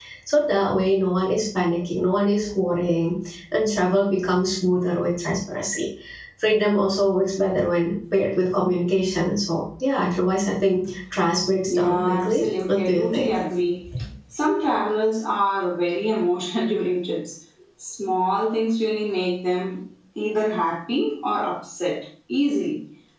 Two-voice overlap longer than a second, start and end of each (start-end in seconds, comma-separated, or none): 11.6-13.3